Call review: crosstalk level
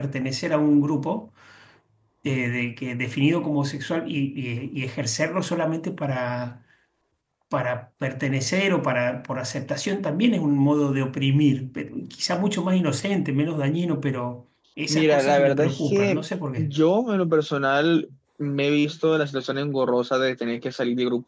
present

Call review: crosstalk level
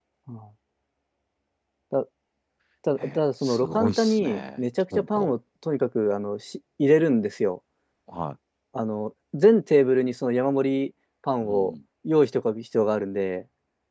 present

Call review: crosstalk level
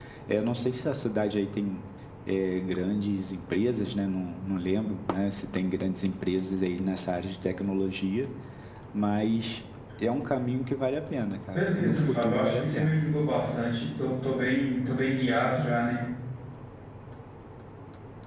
present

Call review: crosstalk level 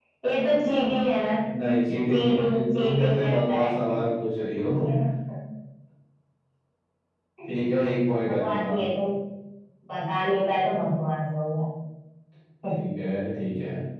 present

